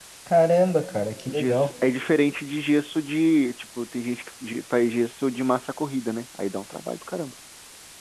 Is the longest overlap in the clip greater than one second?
No

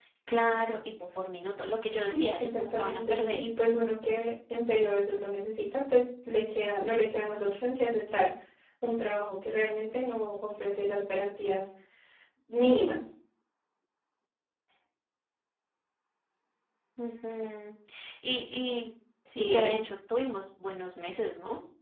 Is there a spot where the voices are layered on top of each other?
Yes, from 2.1 s

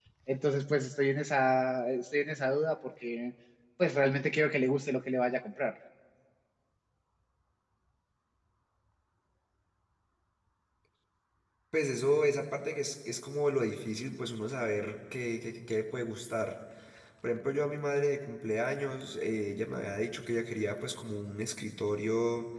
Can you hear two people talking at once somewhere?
No

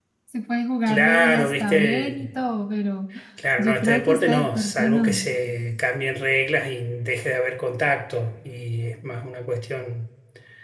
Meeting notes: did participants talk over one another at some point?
Yes, from 0.9 s

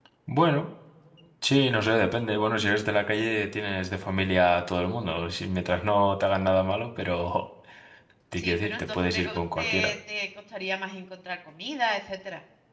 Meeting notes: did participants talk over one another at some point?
Yes, from 8.4 s

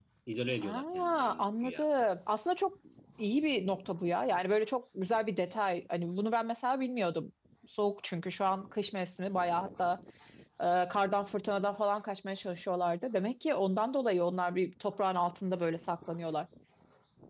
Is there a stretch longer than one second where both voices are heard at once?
Yes, from 0.6 s

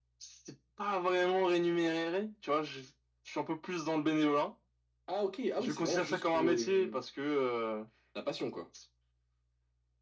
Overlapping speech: Yes, from 5.6 s

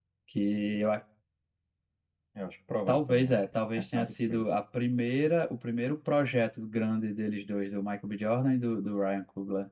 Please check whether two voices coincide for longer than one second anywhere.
Yes, from 2.9 s

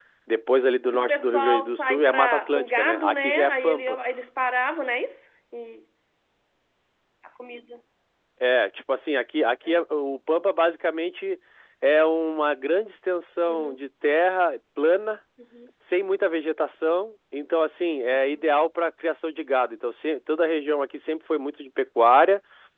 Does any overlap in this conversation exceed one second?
Yes, from 0.9 s

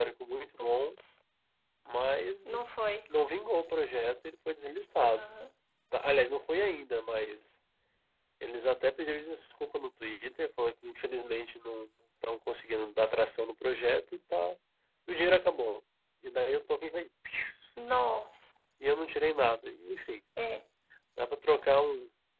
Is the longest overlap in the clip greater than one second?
No

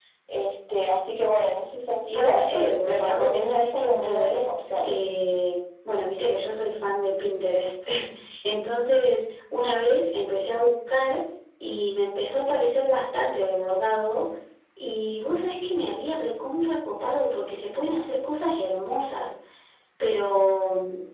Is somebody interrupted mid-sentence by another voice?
Yes, from 2.1 s

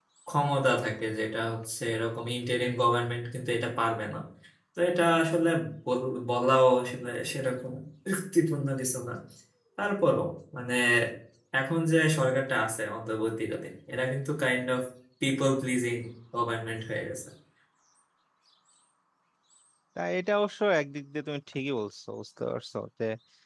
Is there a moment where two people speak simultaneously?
No

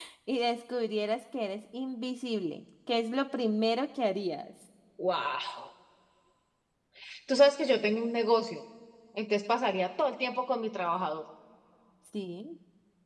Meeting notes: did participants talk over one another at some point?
No

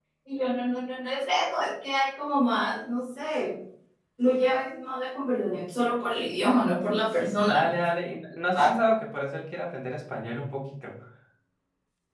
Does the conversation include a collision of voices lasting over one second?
No

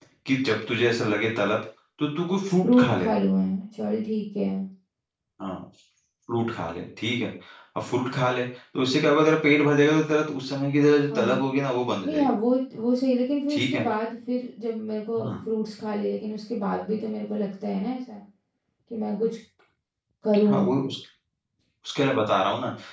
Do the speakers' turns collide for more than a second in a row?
No

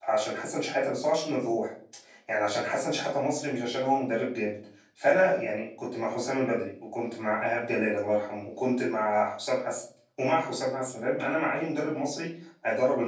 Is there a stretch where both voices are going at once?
No

